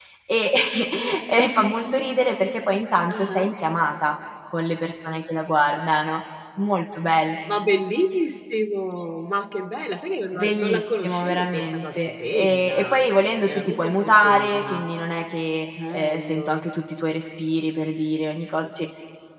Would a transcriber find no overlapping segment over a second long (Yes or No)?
No